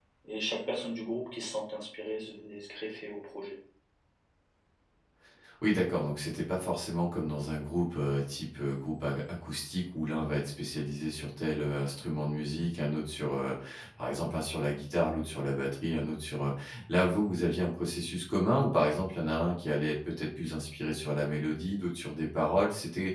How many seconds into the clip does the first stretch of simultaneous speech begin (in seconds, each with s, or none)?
none